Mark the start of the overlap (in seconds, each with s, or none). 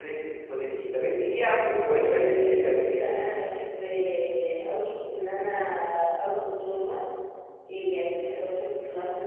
1.8 s